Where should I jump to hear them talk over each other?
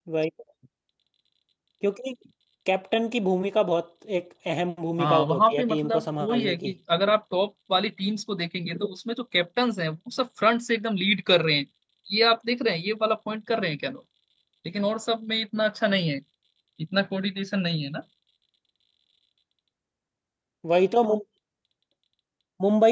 5.0 s

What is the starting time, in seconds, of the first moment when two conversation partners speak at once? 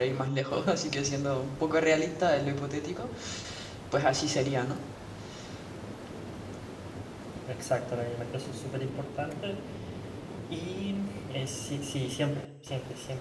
none

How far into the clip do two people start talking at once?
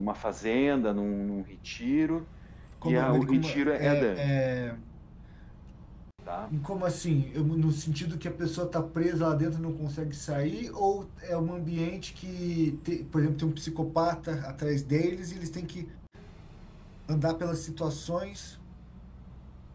2.8 s

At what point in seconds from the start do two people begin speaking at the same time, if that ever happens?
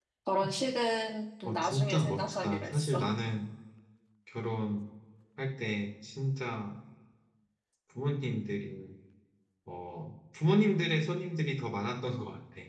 1.4 s

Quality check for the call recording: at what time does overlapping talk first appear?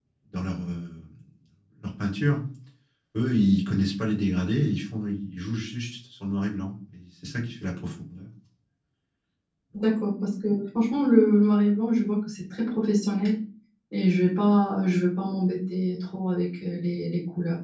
none

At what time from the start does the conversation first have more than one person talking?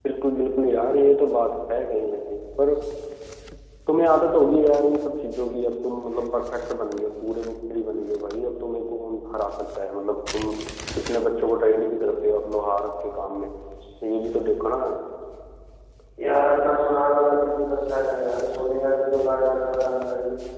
none

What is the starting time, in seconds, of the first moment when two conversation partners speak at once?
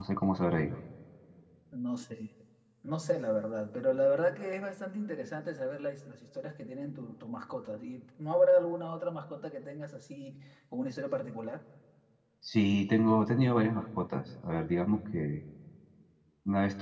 none

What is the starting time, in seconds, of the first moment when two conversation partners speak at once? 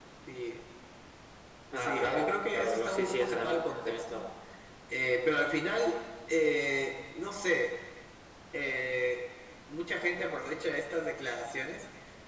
1.8 s

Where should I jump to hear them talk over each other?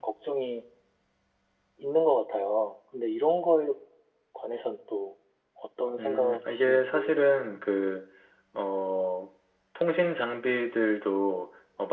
6.0 s

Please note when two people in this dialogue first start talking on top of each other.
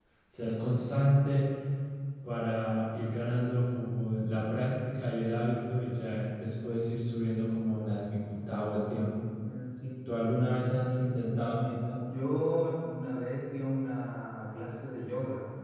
none

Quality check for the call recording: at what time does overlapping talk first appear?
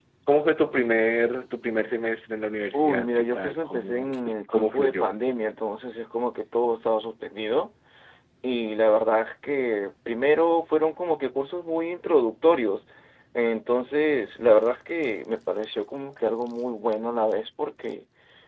2.7 s

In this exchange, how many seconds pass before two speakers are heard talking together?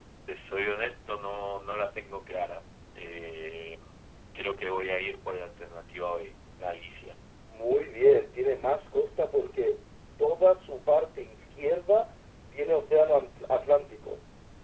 none

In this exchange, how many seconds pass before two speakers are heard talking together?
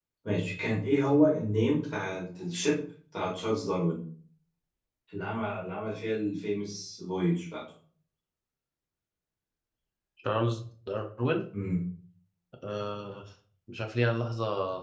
none

